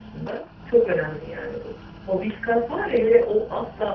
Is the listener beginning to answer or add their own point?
No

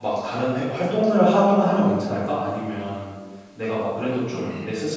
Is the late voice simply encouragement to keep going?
Yes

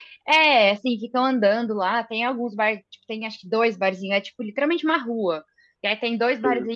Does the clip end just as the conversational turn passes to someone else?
No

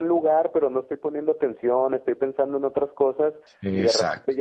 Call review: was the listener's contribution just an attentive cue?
Yes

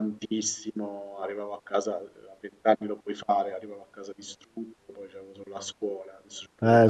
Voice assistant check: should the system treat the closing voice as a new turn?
Yes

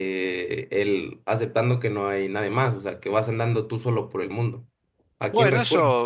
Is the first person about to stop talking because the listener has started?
Yes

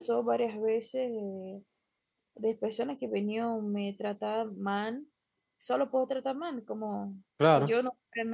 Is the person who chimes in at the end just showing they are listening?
Yes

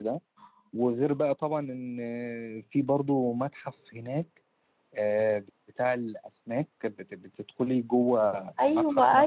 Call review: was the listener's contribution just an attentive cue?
No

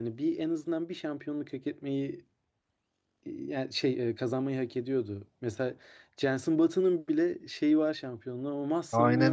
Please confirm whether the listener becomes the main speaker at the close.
Yes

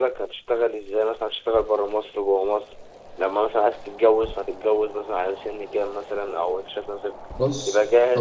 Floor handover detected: Yes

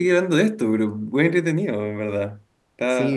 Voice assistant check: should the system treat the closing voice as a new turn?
Yes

